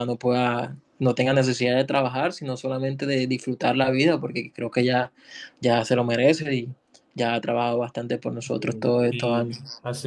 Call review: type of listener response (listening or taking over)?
taking over